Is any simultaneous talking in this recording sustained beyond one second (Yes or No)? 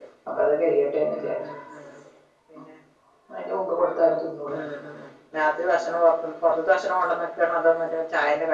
No